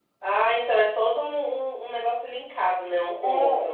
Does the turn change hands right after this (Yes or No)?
Yes